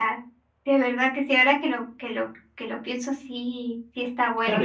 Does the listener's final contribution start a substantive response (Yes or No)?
Yes